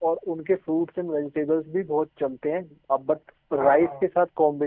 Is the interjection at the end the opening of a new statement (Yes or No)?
No